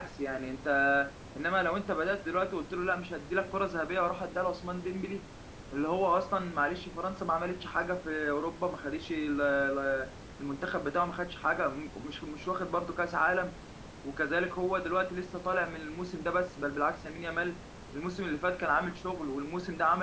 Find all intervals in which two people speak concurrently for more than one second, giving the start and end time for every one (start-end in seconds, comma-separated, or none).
none